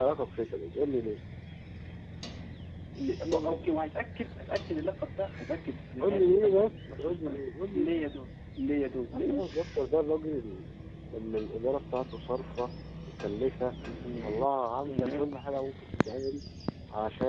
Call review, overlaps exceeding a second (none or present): present